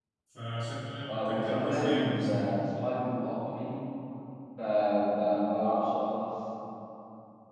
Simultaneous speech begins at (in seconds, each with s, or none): 1.1 s